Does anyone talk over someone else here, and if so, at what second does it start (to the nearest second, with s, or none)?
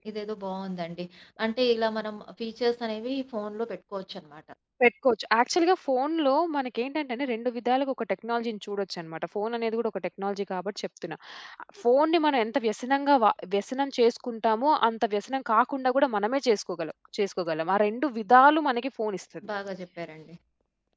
none